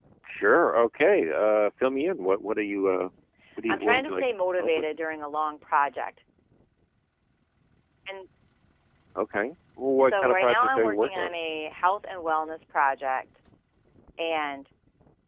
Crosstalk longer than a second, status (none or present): present